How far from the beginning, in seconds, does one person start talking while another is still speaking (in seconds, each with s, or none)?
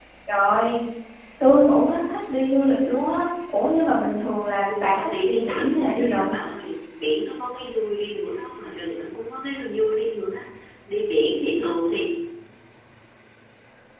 4.7 s